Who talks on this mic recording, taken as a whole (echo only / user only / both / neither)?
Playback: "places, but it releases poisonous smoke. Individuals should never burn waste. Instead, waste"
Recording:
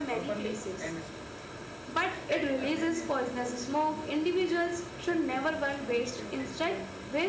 both